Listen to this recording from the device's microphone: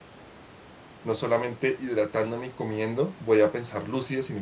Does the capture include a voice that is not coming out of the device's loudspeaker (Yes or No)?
Yes